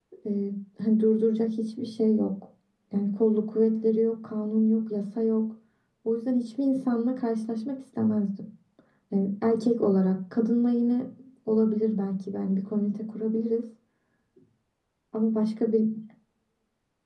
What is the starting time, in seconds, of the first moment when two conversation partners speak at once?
none

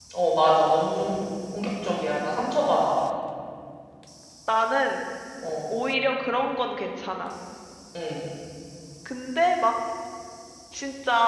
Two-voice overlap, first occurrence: none

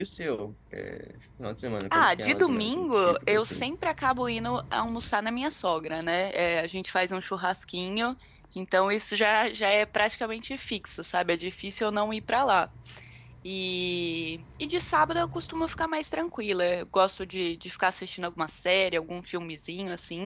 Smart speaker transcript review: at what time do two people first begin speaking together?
2 s

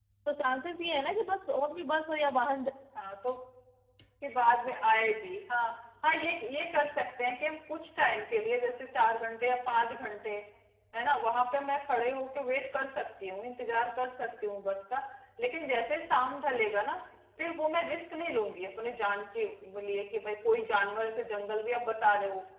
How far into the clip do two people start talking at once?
none

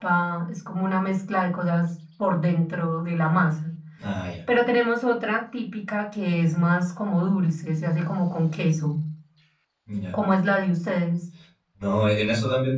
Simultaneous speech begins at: none

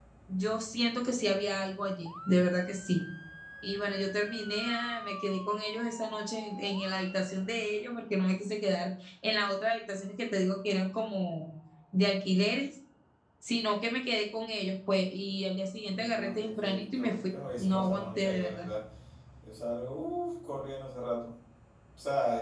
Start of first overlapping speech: 16 s

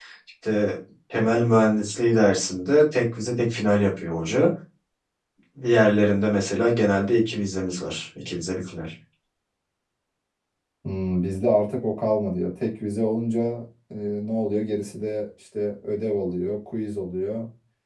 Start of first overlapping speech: none

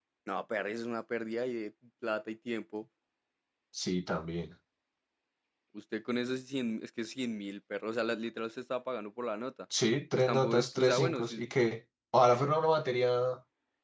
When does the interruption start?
10 s

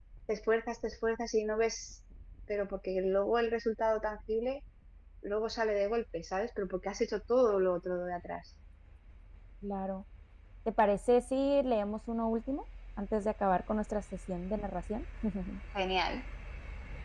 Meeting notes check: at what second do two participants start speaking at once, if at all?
none

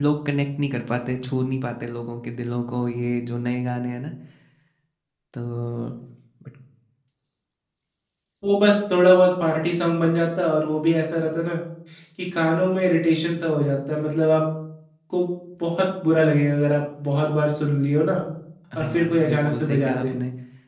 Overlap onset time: 19 s

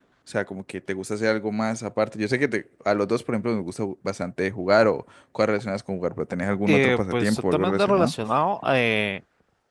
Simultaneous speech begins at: 7 s

